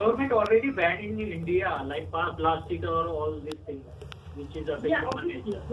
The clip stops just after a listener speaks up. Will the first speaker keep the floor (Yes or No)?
No